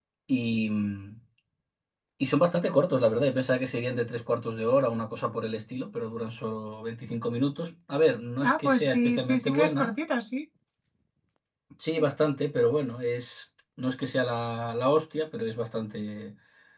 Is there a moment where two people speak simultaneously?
Yes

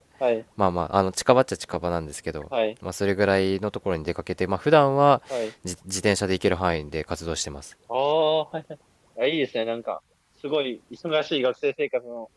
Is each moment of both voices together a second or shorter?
Yes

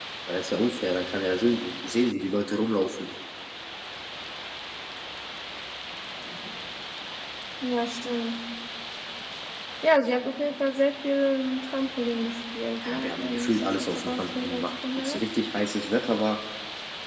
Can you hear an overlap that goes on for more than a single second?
Yes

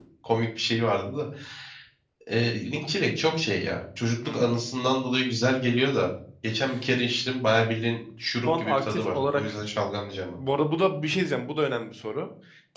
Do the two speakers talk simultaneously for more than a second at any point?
Yes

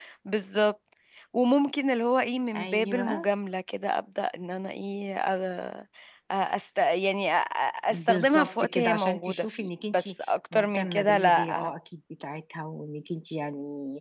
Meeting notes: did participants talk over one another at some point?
Yes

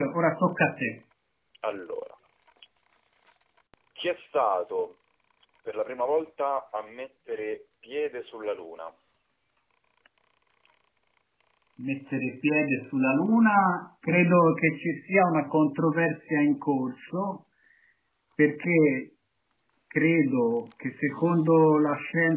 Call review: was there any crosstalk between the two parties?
No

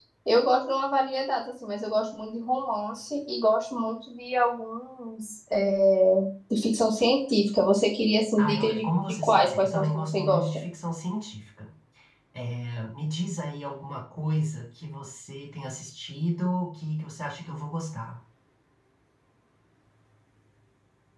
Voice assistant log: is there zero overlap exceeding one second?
No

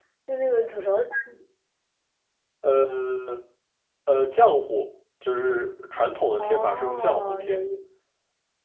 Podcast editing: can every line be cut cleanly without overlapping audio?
No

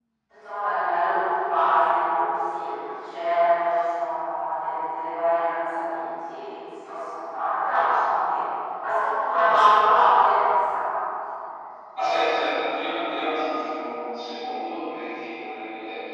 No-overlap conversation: Yes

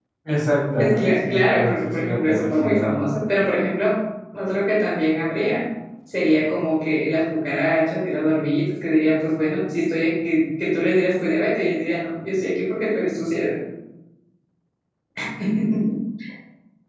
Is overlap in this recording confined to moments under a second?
No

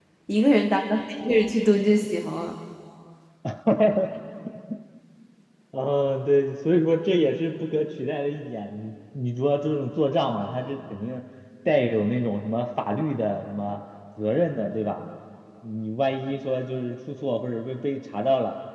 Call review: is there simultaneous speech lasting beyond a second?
No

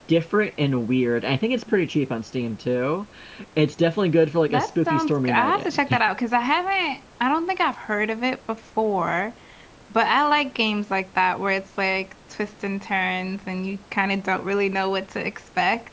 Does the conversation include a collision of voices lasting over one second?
Yes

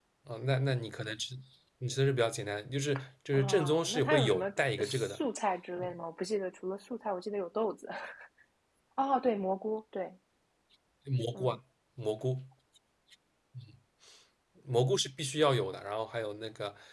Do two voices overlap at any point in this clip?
Yes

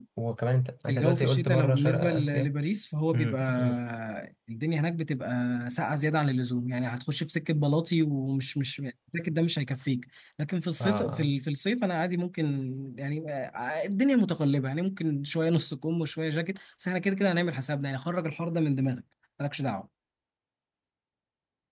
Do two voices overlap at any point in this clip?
Yes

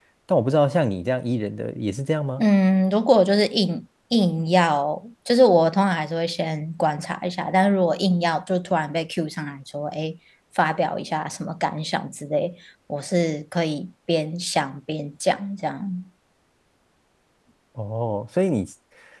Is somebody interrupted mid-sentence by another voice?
No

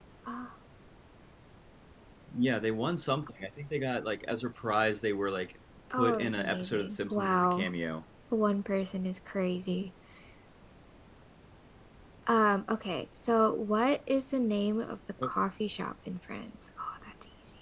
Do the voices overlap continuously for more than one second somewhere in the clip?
Yes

